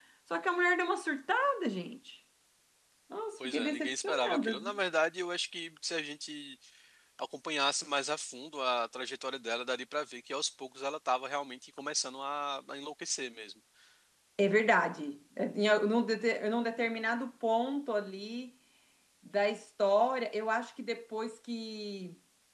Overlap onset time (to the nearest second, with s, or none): 3 s